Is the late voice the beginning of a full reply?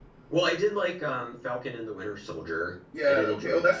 Yes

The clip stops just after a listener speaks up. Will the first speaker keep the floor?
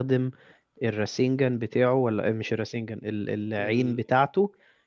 Yes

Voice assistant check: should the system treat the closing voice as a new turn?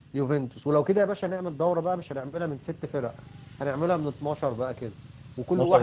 No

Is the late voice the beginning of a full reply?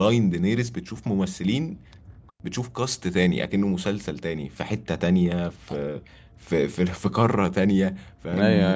Yes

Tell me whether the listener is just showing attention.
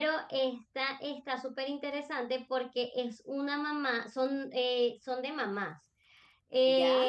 Yes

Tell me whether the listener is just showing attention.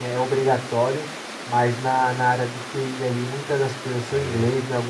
Yes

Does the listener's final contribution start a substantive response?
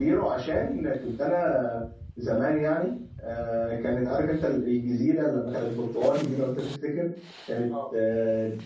No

